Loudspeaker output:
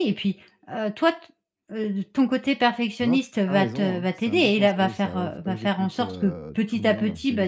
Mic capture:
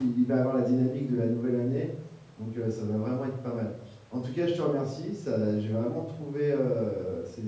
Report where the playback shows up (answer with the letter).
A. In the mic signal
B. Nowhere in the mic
B